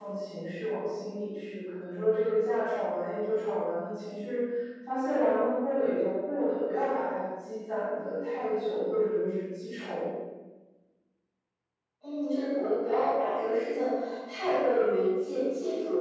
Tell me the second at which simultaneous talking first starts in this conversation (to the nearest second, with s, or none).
none